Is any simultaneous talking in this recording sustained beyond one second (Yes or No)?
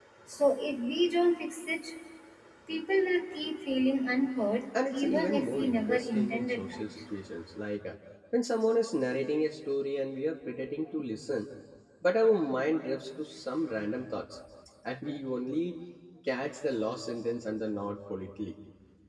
Yes